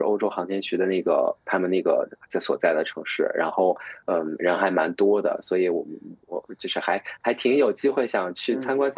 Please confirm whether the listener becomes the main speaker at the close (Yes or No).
No